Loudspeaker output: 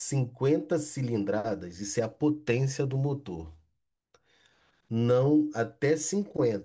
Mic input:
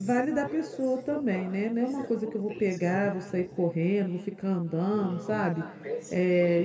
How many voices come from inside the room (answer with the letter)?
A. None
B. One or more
B